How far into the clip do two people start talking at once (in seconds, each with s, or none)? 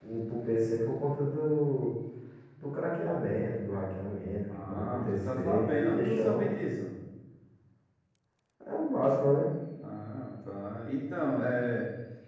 4.5 s